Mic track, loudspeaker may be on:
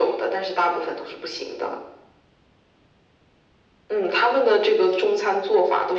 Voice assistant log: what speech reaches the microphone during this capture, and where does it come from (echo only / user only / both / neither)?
echo only